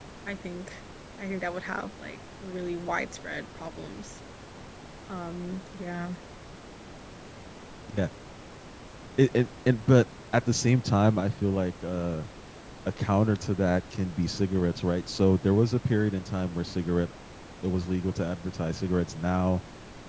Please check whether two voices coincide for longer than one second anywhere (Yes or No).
No